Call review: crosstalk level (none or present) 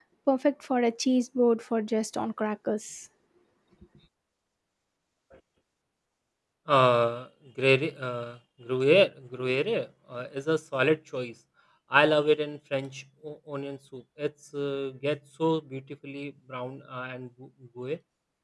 none